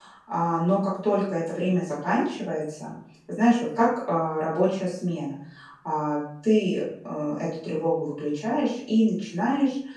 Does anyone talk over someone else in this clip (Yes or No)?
No